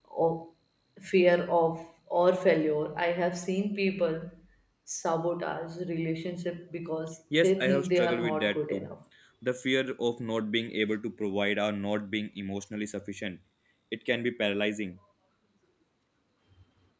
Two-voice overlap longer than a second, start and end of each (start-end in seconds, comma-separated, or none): 7.4-8.9